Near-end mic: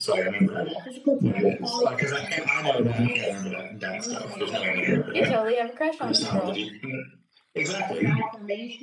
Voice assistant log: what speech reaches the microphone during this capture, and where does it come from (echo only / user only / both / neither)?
both